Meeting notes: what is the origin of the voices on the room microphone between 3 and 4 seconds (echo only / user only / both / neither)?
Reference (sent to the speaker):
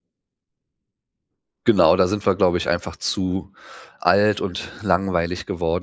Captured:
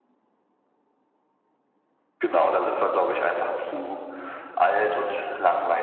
echo only